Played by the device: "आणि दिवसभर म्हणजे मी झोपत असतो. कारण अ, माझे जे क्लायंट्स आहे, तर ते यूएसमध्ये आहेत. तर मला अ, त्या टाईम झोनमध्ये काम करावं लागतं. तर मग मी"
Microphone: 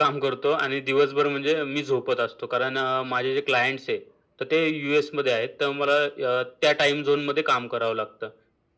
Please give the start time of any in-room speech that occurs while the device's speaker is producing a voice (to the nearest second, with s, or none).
none